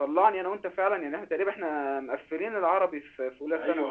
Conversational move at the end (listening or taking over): taking over